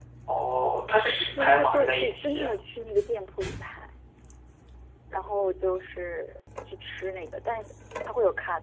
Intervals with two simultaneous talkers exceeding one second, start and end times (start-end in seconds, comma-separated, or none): 1.2-2.5